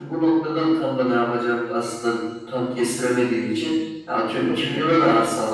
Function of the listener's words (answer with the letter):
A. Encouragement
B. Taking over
A